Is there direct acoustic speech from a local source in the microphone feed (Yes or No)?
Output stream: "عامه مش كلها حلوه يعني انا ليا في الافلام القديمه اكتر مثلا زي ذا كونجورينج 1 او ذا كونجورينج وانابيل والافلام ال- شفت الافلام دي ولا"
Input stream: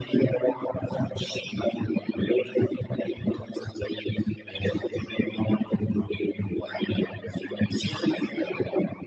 No